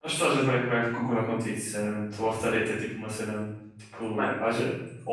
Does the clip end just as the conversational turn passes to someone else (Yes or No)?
No